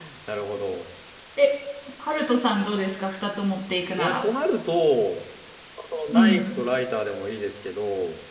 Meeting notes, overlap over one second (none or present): none